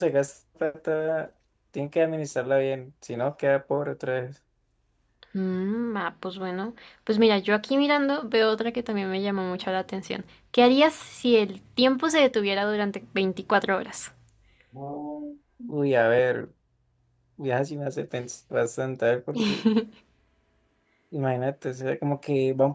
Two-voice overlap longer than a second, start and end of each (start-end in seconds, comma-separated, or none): none